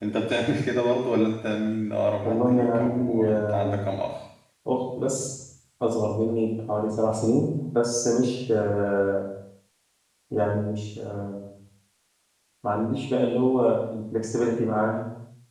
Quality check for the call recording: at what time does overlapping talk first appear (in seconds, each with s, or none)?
2.2 s